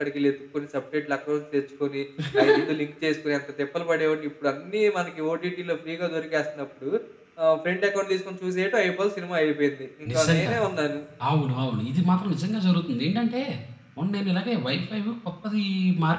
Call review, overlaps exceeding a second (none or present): none